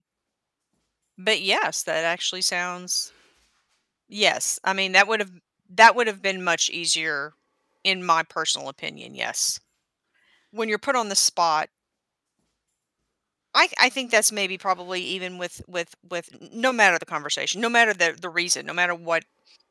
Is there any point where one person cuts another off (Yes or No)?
No